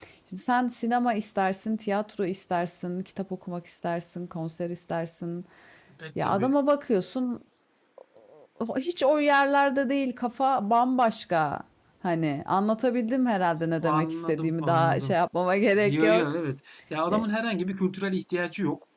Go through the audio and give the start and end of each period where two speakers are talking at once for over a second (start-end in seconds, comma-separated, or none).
13.8-15.2